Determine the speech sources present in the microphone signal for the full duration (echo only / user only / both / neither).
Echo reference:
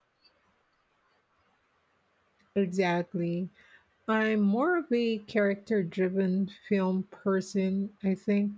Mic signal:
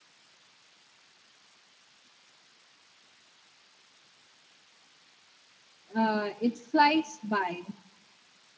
user only